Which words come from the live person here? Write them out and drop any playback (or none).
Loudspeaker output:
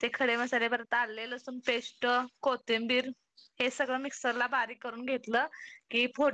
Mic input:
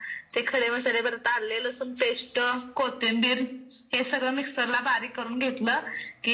none